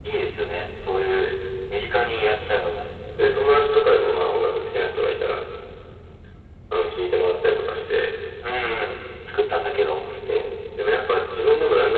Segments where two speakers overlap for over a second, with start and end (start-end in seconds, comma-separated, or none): none